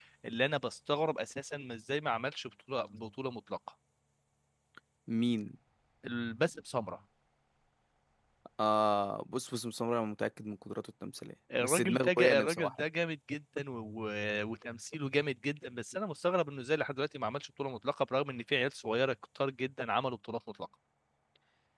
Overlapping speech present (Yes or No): Yes